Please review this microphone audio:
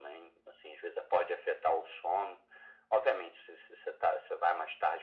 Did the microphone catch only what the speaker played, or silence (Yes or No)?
Yes